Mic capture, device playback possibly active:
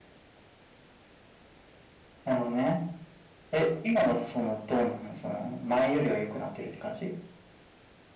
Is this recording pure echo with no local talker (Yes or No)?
Yes